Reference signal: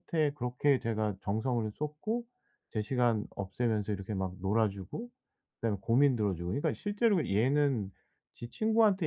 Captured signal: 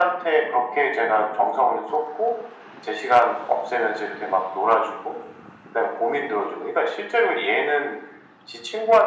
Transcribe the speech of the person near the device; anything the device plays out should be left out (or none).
none